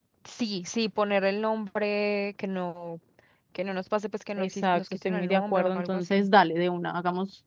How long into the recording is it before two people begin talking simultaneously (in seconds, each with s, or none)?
4.4 s